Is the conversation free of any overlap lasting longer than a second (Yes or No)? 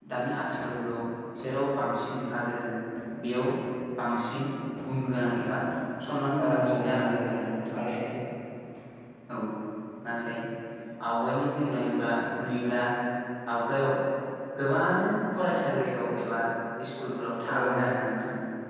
No